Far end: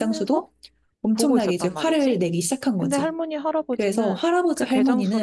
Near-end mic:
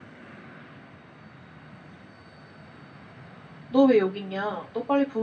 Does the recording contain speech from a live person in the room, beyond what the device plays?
Yes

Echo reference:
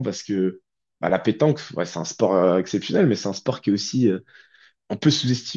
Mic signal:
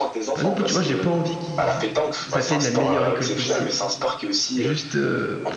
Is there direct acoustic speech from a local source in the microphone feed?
Yes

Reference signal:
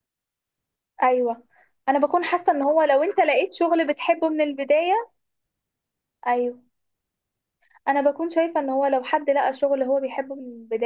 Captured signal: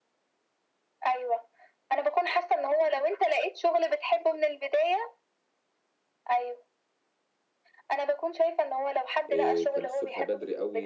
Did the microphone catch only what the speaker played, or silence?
No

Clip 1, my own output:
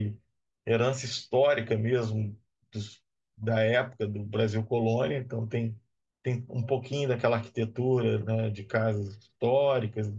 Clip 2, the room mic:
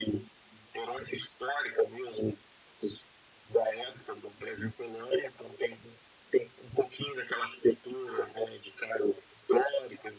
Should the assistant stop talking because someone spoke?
No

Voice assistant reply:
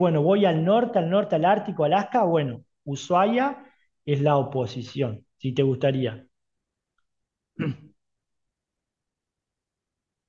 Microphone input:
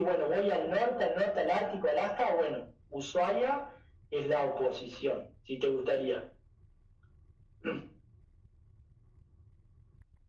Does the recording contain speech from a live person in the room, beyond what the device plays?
No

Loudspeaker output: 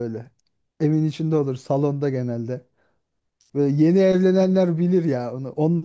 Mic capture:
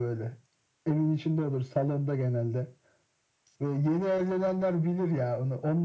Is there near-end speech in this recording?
No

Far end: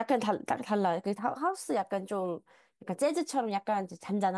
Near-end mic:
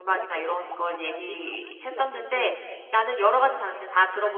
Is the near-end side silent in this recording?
No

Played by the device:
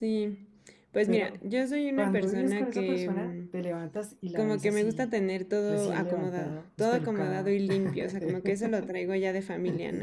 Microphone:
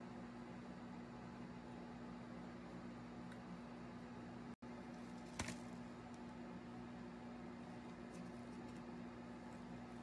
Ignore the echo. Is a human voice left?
No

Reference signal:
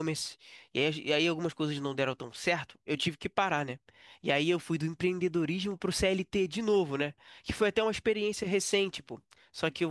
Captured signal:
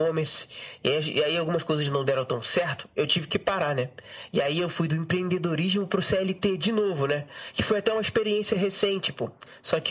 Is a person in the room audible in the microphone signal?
No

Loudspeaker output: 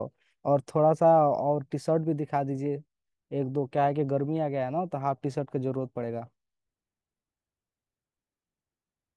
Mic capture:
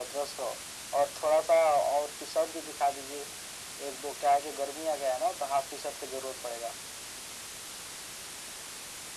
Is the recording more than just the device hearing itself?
No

